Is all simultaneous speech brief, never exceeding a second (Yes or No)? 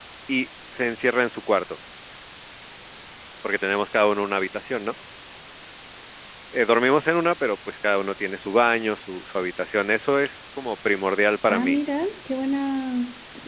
Yes